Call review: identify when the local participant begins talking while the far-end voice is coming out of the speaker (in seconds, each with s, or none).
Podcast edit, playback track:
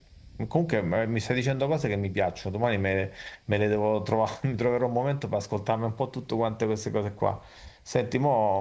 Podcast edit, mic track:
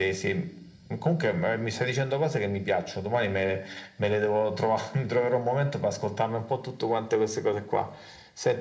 none